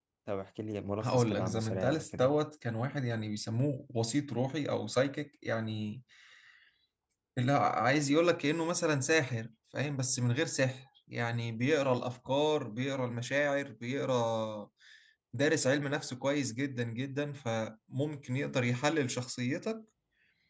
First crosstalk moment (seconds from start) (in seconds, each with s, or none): 1.0 s